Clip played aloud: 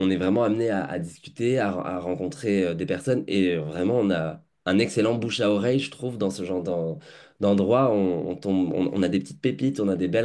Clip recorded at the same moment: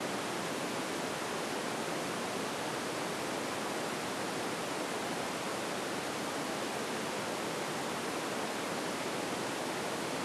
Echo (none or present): none